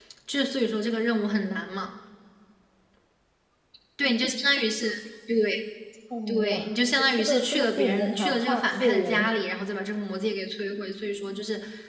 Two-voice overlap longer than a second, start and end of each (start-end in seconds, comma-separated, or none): 7.2-9.3